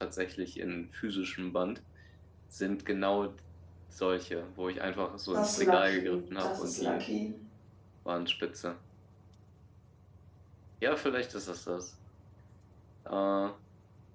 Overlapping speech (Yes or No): Yes